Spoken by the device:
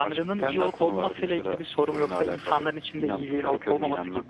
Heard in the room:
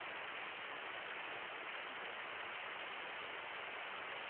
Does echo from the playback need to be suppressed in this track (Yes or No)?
No